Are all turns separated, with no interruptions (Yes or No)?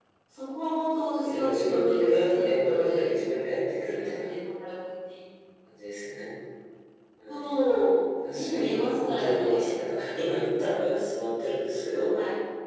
No